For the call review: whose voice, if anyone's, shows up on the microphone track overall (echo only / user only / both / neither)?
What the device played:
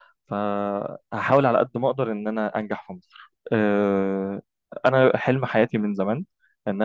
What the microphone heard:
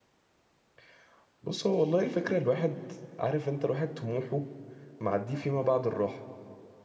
user only